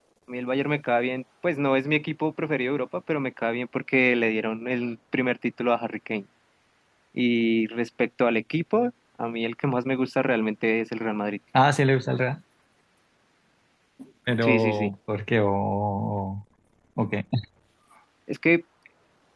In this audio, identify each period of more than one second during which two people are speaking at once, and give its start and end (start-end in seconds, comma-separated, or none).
none